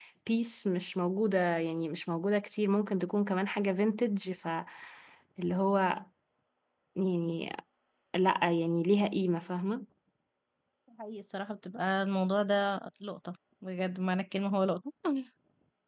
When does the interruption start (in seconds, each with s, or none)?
none